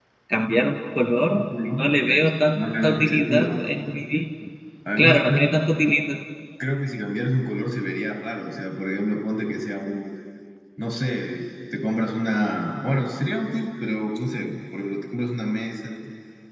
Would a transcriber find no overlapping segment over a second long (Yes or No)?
No